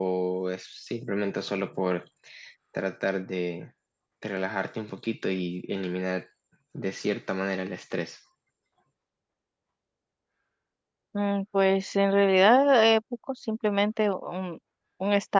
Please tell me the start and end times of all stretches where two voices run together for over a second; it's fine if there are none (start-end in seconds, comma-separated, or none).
none